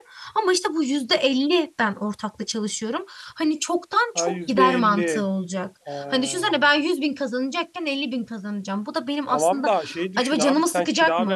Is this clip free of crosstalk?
No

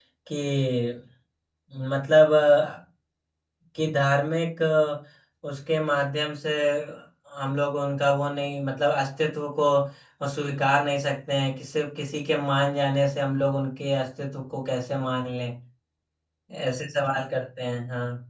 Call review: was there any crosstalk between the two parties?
No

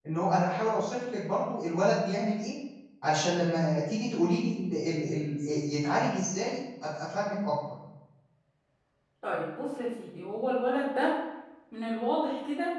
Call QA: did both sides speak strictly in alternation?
Yes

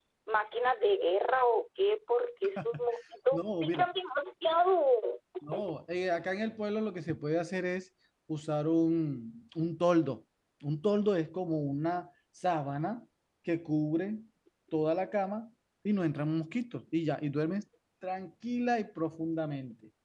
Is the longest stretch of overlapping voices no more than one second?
Yes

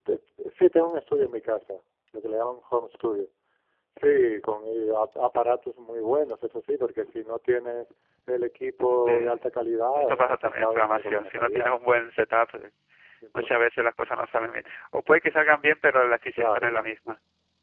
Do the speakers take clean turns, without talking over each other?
No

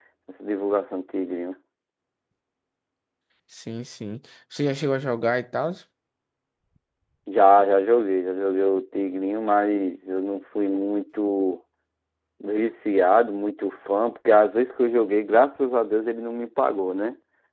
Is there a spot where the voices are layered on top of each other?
No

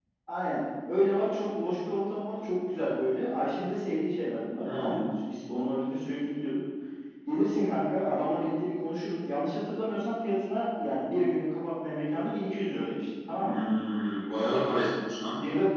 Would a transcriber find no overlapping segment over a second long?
Yes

